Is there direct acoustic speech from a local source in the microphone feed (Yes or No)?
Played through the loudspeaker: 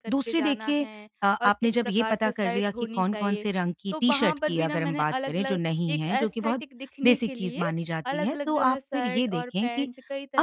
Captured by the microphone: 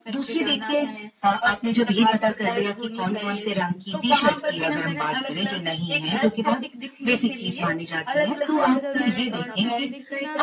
Yes